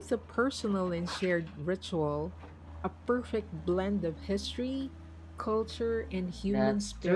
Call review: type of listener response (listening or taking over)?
taking over